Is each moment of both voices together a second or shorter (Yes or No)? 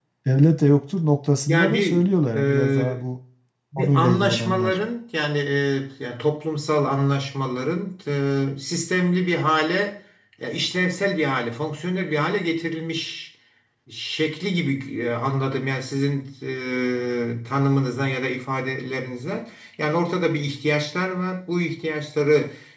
No